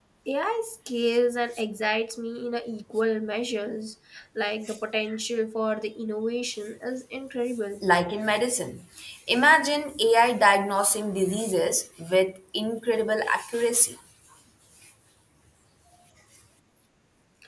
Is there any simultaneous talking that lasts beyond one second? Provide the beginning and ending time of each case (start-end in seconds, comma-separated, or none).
none